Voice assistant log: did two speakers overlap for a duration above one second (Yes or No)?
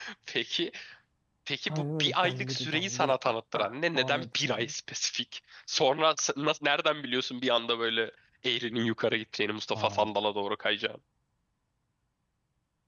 Yes